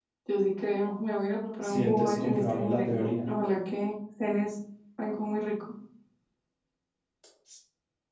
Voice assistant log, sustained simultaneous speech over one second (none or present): present